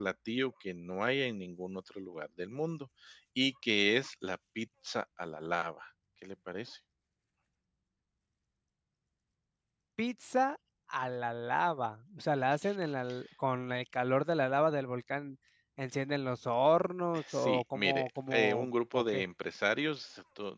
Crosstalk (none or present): present